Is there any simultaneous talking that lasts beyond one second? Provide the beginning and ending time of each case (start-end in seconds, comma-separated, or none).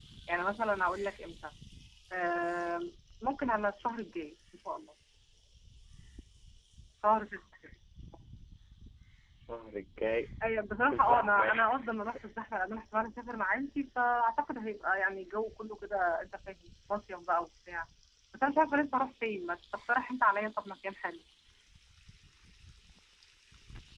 10.8-12.2